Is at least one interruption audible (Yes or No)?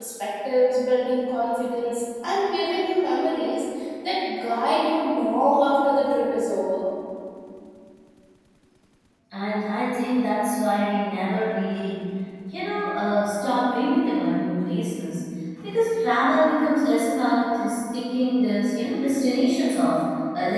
No